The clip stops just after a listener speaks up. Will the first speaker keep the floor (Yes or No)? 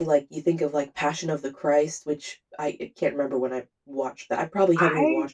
No